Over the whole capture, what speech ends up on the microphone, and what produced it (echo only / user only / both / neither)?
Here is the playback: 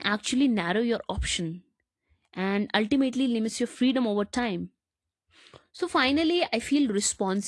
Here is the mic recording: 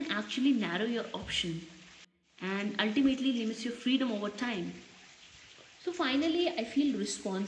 echo only